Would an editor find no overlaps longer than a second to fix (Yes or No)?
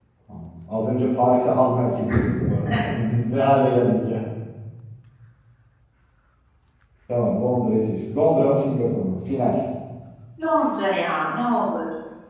Yes